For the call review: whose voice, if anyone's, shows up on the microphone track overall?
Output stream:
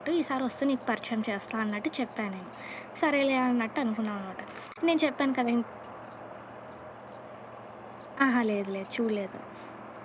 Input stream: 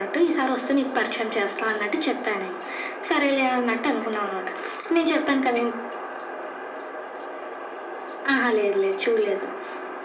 echo only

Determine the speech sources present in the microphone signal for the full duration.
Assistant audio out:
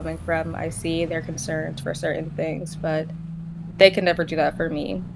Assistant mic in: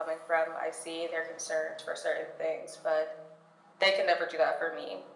echo only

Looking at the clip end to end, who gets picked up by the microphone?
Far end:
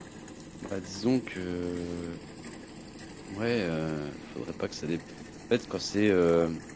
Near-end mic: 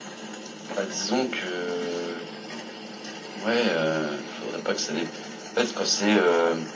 echo only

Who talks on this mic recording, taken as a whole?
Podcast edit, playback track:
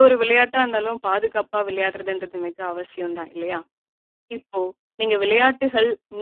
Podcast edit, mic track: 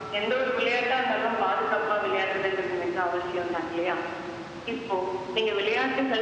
echo only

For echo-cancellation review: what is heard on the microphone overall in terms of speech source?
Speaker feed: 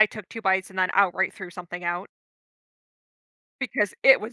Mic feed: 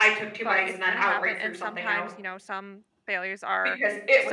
both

